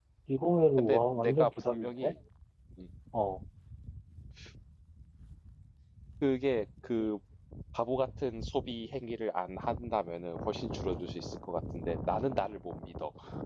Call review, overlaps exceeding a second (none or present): present